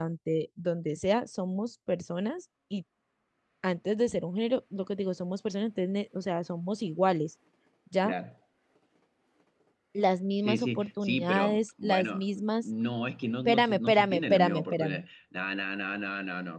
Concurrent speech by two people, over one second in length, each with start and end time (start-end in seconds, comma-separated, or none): 10.4-12.6, 13.4-15.0